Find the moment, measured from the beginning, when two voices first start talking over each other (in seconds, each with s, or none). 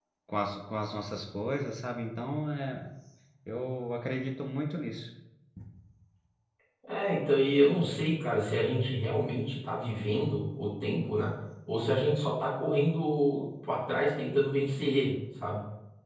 none